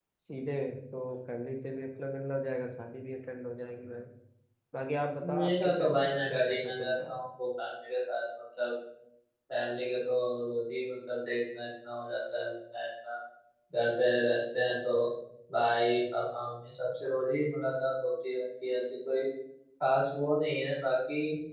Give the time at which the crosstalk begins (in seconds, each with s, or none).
5.2 s